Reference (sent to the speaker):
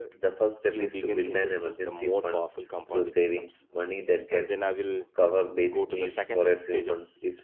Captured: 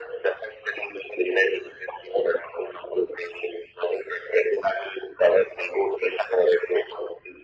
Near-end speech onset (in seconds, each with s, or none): none